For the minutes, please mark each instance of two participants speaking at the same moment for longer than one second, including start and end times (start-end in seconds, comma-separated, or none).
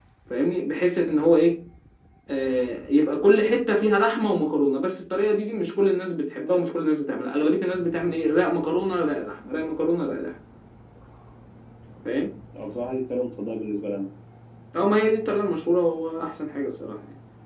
none